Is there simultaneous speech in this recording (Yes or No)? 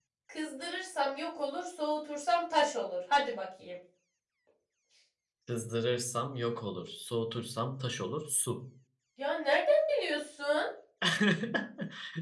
No